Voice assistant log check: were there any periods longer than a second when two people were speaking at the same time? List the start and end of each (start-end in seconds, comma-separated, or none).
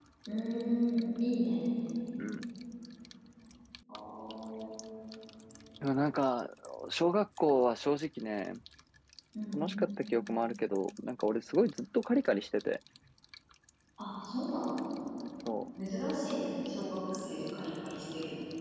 none